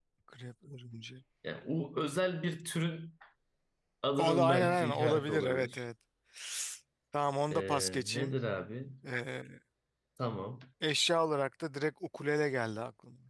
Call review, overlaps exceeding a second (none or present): present